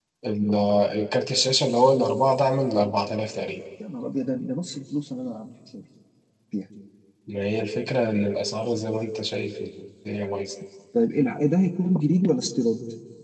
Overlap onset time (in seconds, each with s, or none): none